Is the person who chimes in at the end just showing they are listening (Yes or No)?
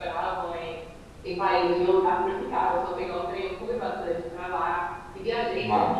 Yes